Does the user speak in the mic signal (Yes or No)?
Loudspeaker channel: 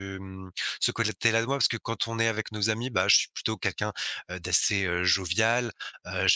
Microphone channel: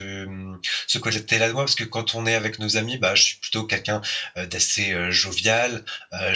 No